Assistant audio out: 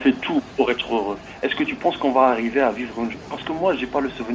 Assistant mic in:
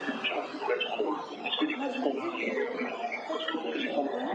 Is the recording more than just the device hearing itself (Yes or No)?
Yes